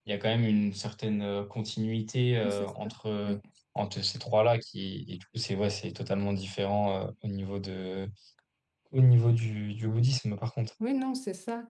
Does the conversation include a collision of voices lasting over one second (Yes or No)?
No